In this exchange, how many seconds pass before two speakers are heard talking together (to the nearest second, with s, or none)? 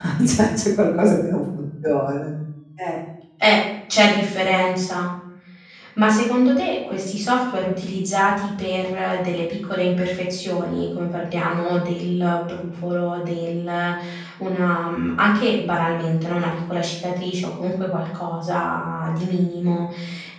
none